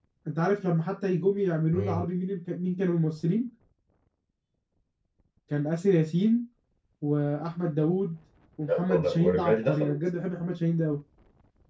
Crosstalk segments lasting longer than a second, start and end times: 8.7-9.9

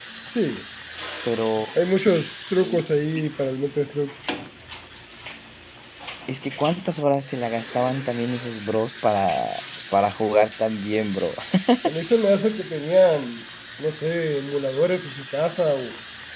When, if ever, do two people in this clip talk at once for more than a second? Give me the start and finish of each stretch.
none

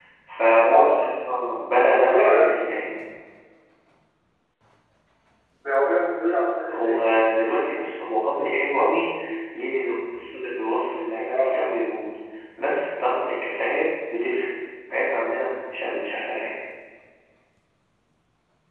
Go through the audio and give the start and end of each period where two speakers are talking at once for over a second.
none

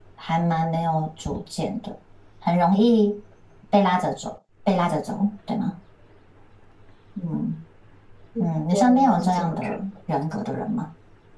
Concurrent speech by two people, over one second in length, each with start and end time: 8.4-9.8

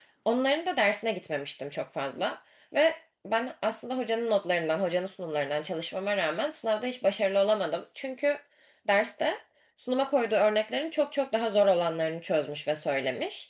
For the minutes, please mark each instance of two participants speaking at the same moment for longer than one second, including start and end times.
none

